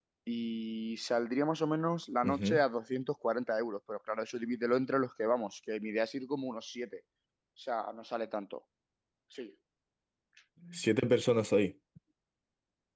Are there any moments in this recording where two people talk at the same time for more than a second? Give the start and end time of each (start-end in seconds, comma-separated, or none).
none